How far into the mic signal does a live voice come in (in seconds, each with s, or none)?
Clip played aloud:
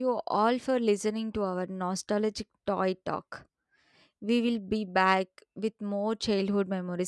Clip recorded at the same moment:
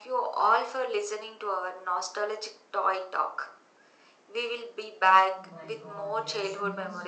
5.4 s